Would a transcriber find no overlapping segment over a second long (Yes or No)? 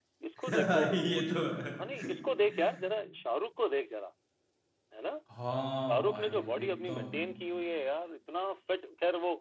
No